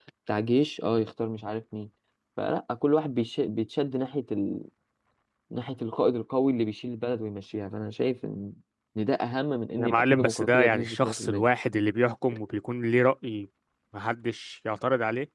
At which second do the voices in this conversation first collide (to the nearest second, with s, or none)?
10 s